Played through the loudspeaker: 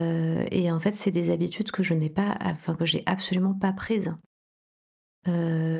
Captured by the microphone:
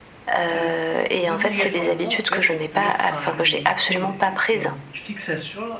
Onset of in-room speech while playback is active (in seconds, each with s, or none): 0.4 s